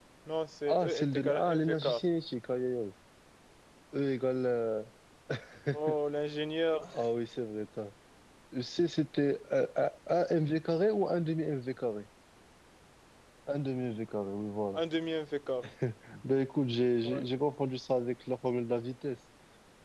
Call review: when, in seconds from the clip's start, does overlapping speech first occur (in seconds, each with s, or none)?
0.7 s